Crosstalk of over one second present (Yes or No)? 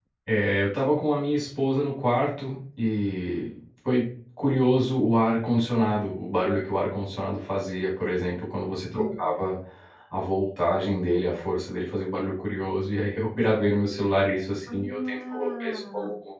Yes